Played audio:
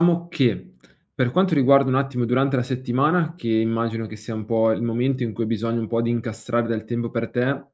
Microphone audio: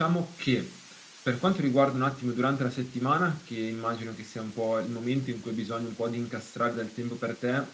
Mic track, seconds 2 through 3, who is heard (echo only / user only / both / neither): echo only